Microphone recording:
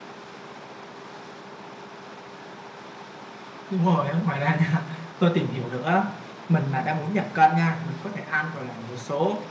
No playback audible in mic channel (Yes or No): Yes